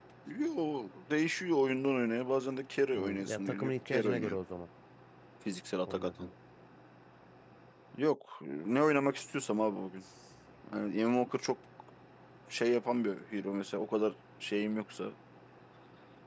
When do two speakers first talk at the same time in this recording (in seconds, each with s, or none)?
2.9 s